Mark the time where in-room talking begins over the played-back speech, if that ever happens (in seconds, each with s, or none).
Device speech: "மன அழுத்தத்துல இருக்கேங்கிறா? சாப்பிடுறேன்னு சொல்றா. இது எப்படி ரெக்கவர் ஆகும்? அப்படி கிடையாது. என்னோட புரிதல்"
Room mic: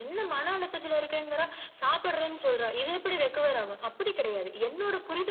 none